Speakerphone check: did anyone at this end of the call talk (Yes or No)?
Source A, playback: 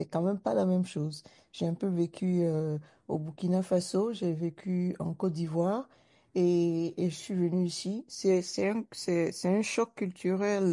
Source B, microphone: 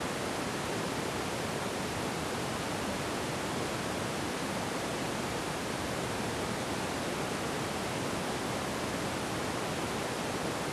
No